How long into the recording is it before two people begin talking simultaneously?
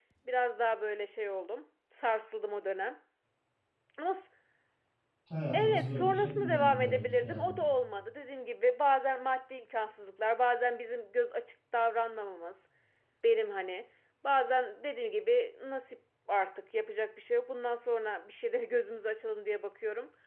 5.5 s

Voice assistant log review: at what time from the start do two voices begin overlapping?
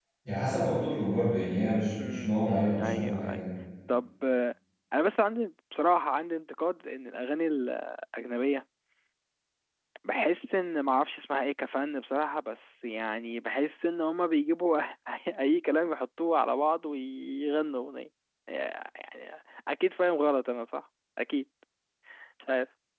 1.9 s

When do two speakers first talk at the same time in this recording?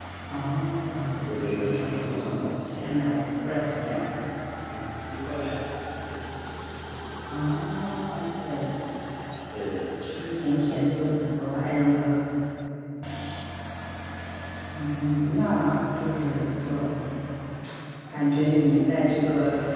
1.3 s

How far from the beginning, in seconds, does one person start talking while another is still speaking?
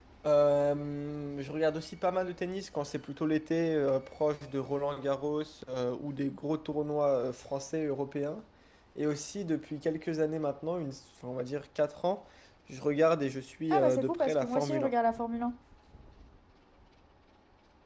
13.7 s

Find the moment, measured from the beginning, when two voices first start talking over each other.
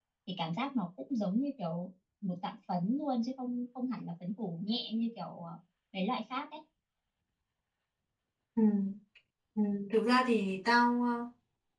none

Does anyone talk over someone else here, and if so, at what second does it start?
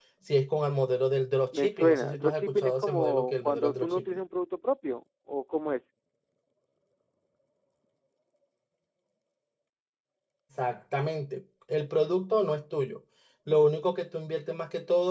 1.5 s

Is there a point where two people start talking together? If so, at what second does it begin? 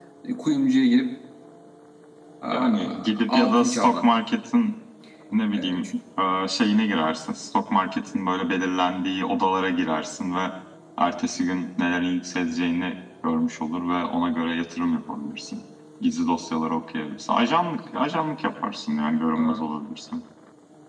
2.5 s

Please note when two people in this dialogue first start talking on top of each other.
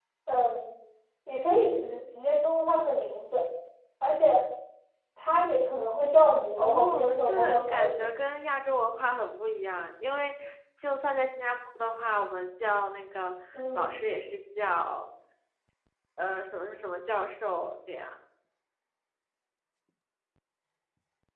6.6 s

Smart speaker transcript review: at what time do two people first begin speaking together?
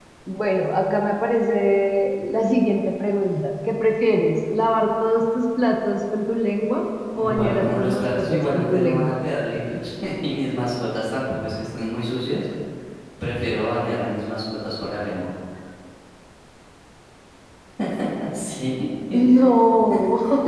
7.2 s

